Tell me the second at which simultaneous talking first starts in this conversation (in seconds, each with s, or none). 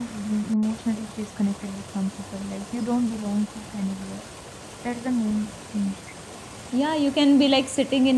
none